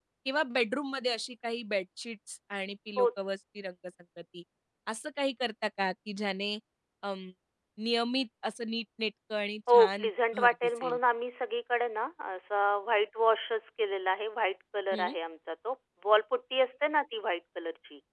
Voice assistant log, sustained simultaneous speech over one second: present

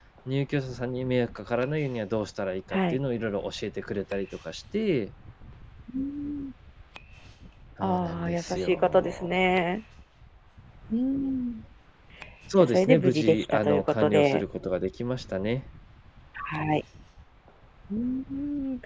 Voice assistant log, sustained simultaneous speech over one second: present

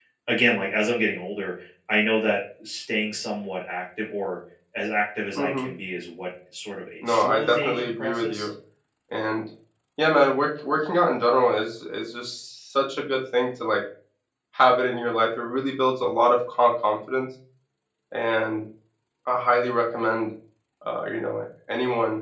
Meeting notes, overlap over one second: present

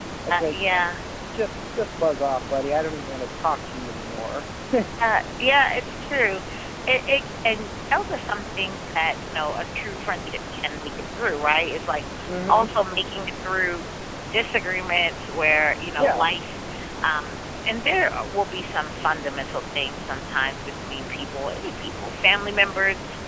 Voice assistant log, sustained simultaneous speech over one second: none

